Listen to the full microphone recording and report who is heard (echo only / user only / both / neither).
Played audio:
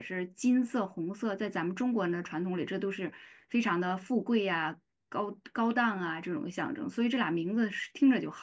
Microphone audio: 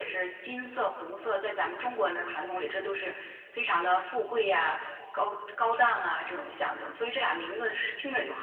echo only